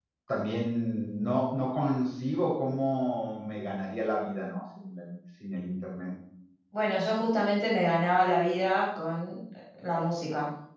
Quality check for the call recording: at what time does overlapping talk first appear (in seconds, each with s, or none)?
none